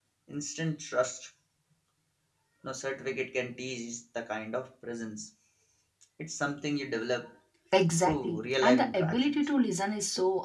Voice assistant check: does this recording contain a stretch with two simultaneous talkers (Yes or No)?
Yes